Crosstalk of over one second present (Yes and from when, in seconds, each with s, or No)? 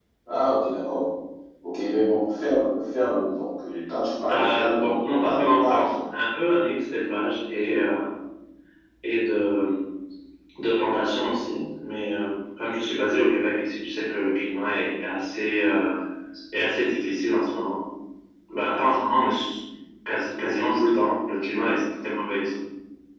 Yes, from 4.3 s